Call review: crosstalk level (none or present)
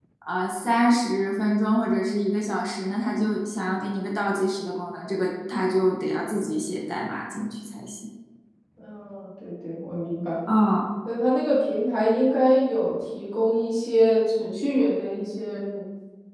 none